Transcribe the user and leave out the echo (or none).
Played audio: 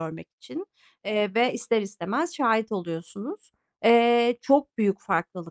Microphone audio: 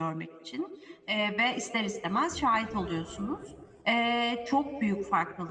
none